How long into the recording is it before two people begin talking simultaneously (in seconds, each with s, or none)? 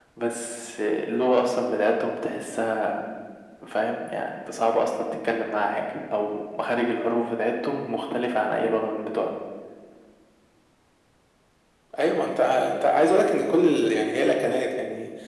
none